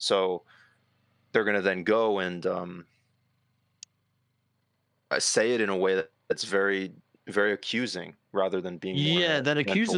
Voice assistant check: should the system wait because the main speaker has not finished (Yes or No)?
No